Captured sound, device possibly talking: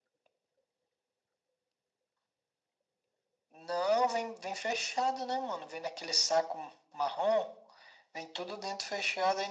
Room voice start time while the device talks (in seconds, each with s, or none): none